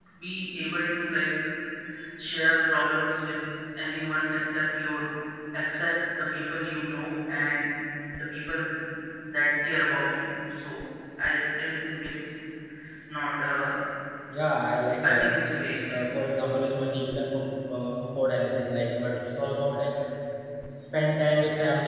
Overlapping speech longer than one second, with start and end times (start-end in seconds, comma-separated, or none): none